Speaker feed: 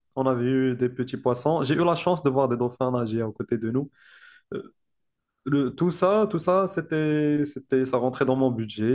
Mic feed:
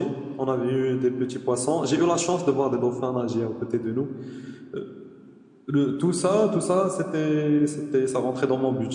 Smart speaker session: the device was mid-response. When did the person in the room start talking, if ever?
none

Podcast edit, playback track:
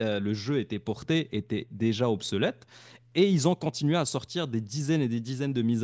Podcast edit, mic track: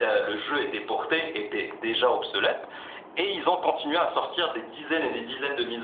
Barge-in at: none

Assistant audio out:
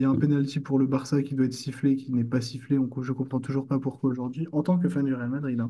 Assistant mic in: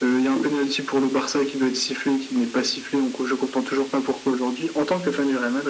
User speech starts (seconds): none

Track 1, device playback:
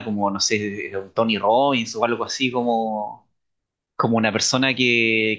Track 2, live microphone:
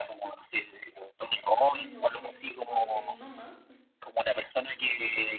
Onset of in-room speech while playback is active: 1.7 s

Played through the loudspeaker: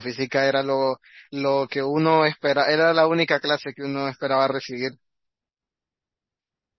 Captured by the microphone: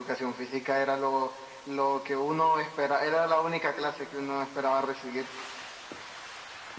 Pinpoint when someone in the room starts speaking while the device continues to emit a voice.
none

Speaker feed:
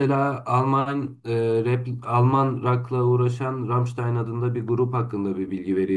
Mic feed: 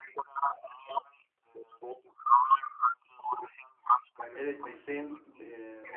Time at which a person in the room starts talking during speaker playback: 4.3 s

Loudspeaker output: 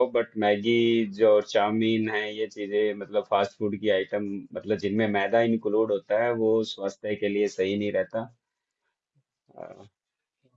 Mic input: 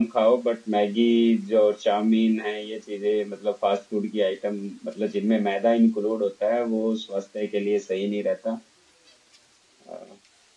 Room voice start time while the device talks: none

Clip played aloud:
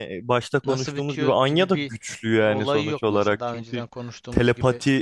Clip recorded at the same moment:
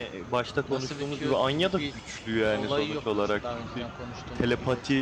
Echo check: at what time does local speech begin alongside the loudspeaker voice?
none

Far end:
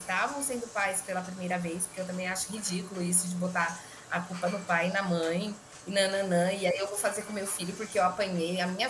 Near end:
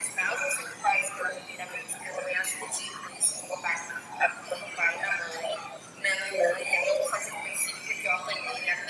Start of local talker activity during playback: none

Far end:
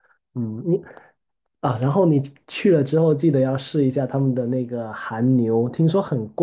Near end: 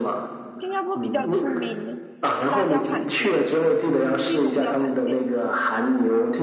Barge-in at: 0.6 s

